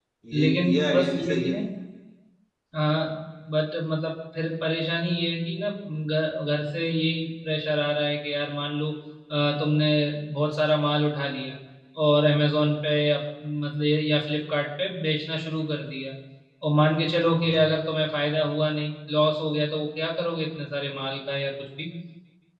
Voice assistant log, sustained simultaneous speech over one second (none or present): present